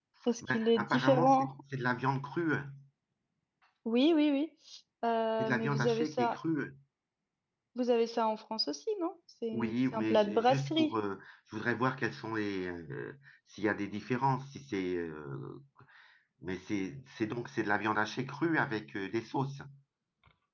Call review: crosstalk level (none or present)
present